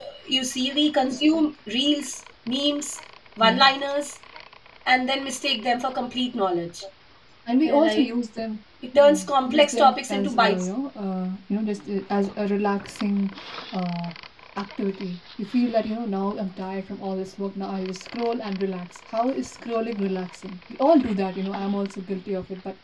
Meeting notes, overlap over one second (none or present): present